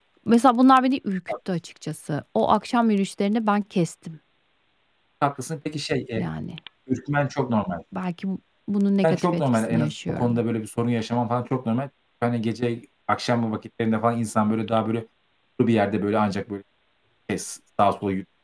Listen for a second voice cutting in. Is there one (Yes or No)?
Yes